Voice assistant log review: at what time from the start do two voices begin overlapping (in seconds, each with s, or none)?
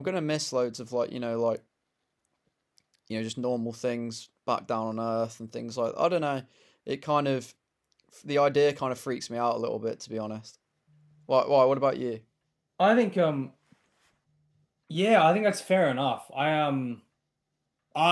none